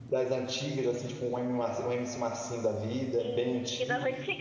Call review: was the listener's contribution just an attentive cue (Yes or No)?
No